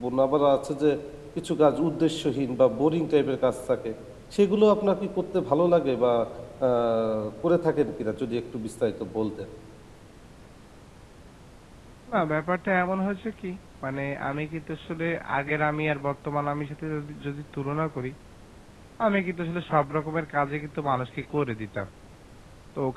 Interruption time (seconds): none

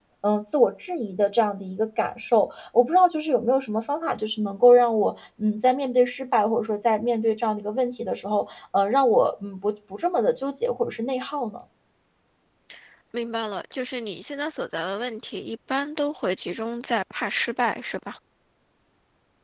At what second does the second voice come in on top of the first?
none

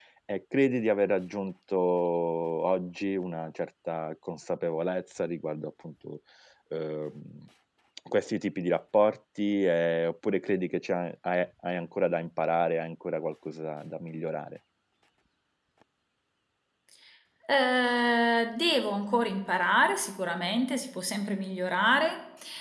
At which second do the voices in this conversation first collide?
none

